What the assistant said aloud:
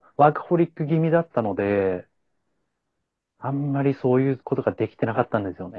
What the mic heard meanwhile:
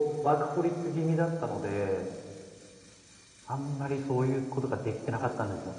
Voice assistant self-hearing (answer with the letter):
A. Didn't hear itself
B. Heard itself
B